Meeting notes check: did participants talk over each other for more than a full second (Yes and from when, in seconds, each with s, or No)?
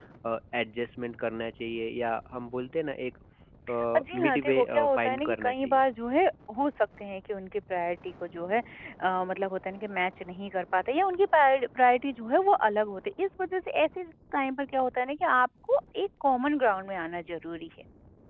Yes, from 3.9 s